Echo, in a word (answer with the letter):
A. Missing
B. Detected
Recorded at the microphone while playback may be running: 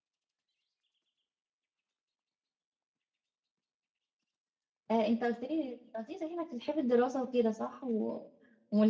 A